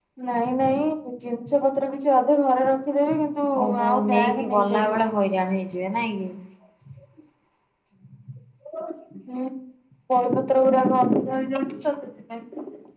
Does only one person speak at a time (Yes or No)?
No